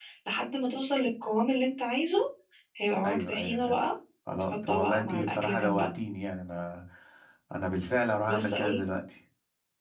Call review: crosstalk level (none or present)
present